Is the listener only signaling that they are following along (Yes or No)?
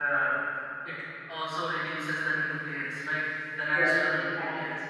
No